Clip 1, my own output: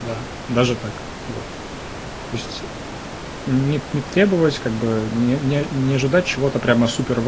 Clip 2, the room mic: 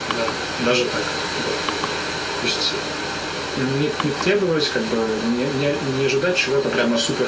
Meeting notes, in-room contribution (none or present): none